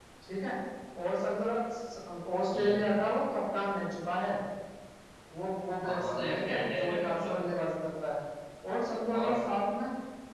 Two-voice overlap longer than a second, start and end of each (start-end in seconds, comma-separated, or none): 5.8-7.3